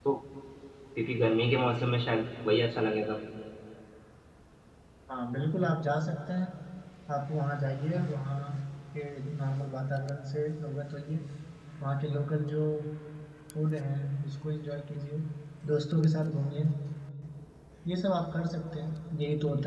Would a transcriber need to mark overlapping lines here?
No

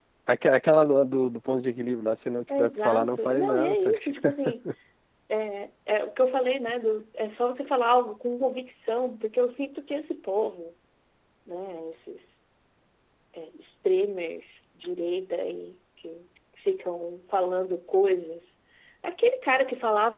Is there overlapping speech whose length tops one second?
Yes, from 2.5 s

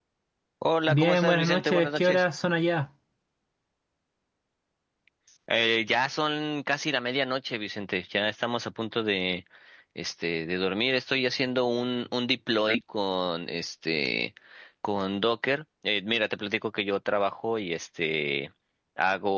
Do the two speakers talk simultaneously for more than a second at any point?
Yes, from 0.9 s

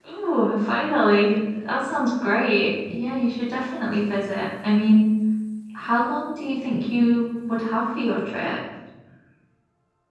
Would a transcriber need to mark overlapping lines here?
No

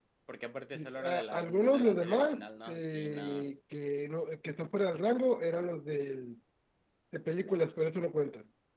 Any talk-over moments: Yes, from 0.7 s

